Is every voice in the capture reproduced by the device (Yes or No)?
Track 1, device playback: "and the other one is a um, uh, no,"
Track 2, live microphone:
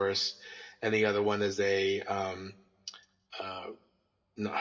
Yes